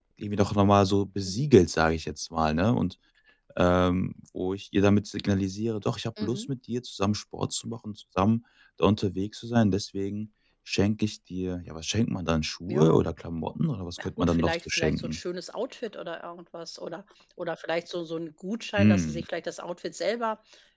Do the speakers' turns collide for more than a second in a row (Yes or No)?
Yes